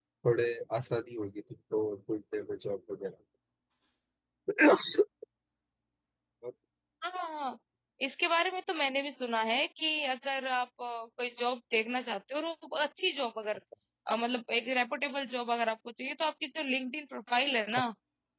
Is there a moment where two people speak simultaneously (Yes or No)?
No